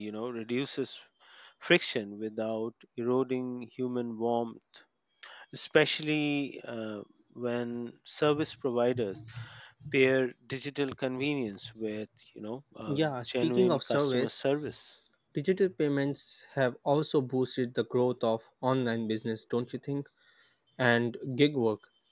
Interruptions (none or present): present